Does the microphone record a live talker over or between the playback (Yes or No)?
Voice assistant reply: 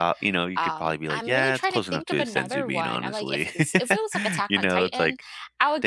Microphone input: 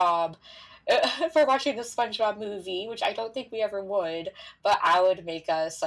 Yes